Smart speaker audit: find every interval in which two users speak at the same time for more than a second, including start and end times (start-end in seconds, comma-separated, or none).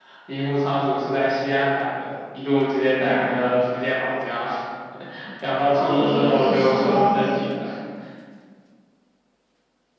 5.7-7.5